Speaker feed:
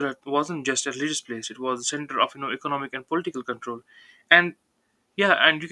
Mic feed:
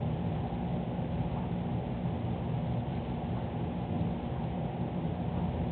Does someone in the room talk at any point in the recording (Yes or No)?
No